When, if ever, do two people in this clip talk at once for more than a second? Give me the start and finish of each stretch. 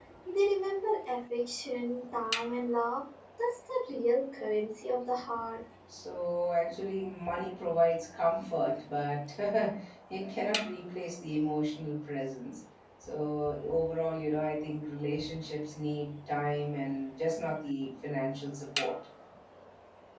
none

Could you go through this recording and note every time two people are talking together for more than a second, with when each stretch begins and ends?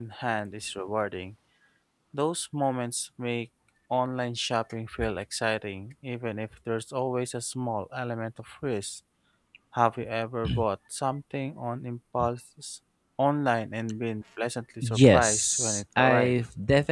14.8-16.3

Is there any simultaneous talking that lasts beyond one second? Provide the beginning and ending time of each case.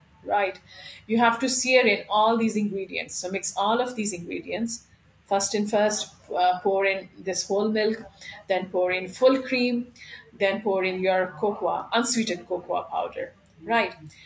none

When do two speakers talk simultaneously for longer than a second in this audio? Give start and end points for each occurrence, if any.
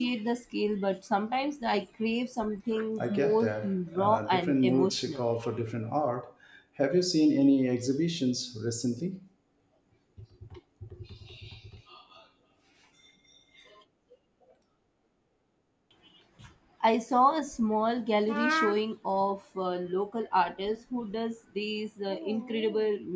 3.0-5.2

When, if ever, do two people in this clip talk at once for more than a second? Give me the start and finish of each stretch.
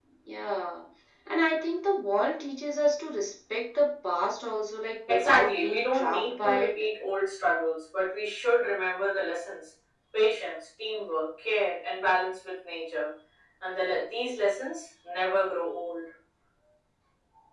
5.1-6.7

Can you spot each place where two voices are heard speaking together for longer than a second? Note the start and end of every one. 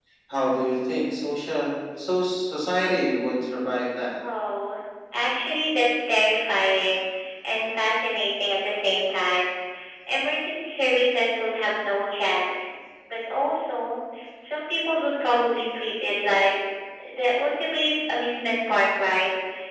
none

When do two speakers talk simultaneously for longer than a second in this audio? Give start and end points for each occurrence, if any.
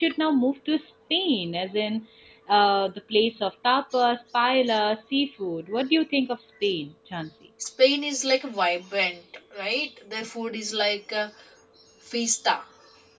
none

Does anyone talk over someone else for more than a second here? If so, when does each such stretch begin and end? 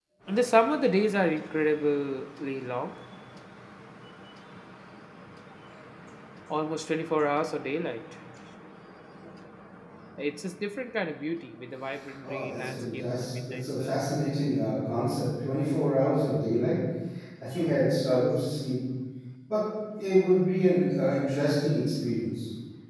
12.2-14.0

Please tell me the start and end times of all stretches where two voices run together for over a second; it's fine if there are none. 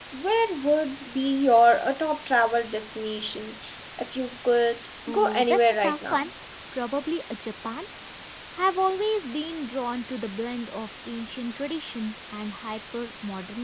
5.1-6.3

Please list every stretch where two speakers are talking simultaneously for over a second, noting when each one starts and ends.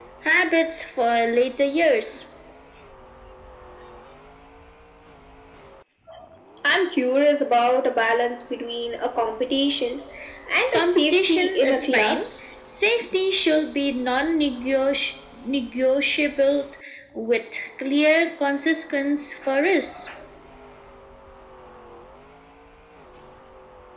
10.7-12.2

